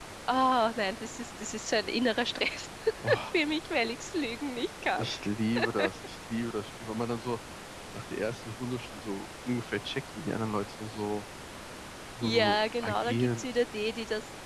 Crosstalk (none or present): present